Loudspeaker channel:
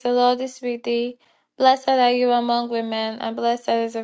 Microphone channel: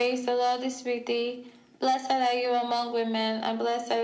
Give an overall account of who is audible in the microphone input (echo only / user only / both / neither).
echo only